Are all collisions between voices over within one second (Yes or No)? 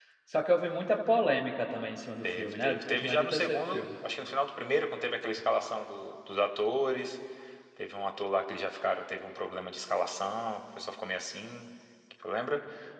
No